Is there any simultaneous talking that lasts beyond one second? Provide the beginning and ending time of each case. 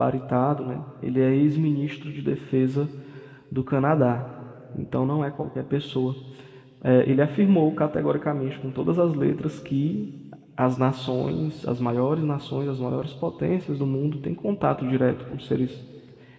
none

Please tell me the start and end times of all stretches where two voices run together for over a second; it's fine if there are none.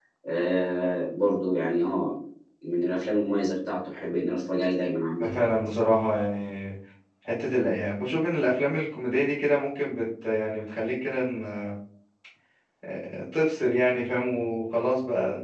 none

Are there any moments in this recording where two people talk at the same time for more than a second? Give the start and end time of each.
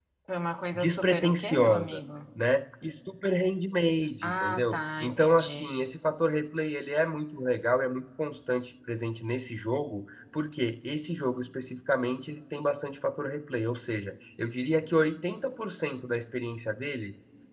0.7-2.0, 4.2-5.7

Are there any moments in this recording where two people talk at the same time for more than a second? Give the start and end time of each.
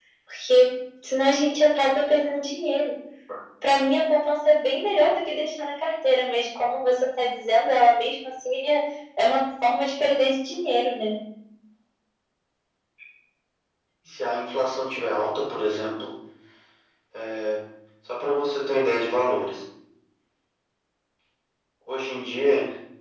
none

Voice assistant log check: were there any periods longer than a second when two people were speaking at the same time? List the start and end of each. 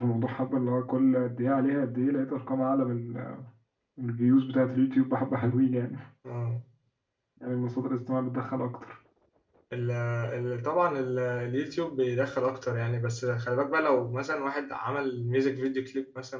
none

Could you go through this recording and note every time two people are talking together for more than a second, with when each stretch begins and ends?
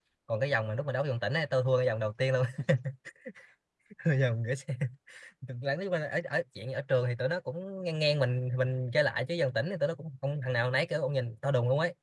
none

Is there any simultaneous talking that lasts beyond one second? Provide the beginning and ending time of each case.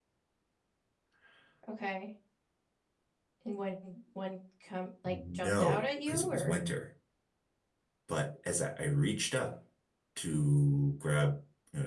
5.0-6.6

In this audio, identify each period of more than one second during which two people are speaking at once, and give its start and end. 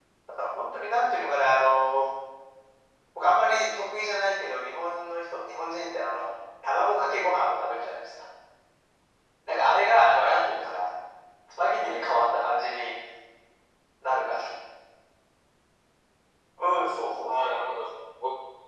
none

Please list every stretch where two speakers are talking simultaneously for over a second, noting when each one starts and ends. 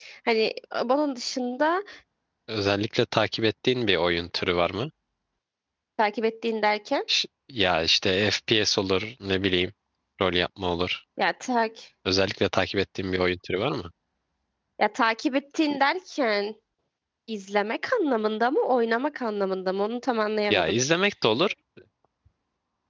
none

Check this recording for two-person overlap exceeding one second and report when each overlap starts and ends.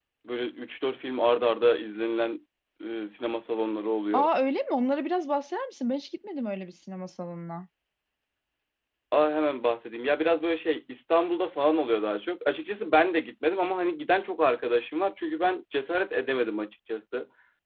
none

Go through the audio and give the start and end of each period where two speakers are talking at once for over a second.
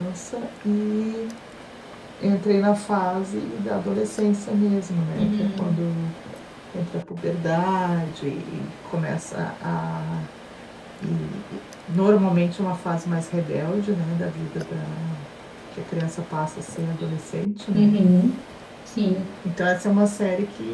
none

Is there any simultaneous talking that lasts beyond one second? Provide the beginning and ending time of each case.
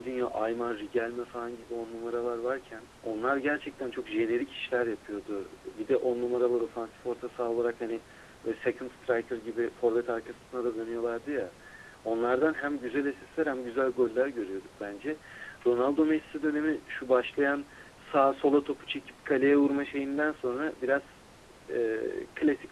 none

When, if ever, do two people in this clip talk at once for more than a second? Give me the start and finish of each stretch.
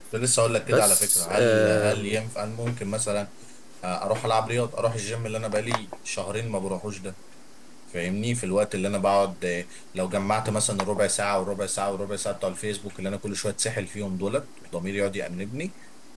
0.7-2.2

